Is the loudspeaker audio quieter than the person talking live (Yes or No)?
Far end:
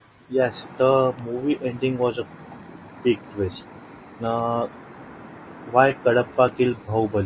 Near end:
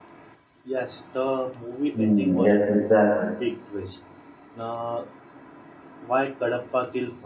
Yes